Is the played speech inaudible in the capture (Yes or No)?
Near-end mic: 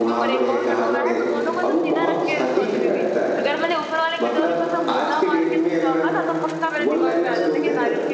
No